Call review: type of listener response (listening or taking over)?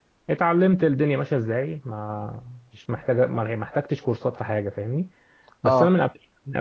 listening